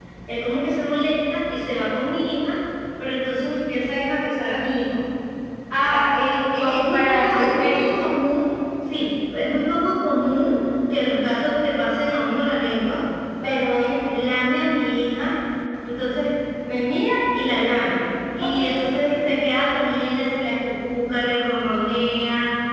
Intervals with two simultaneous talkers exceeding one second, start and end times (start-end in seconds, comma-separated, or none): 6.6-7.9